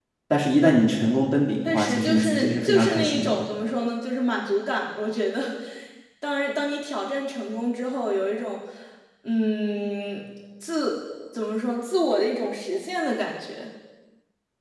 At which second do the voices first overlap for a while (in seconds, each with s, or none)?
1.6 s